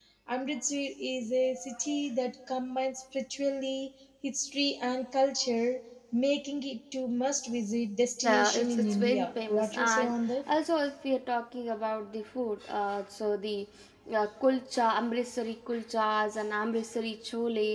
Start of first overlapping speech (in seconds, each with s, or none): 8.2 s